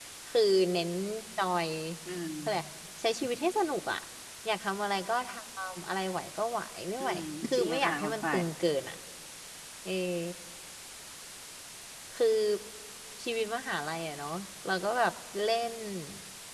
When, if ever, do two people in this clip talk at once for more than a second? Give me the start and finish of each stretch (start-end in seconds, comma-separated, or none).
7.0-8.4